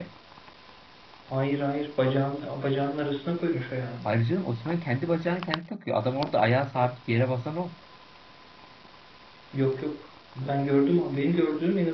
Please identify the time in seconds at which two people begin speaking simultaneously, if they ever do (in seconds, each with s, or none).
none